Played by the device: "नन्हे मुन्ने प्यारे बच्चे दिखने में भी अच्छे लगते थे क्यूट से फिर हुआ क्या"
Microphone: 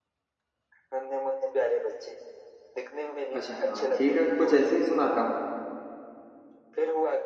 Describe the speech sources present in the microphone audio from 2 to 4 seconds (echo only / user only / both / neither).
both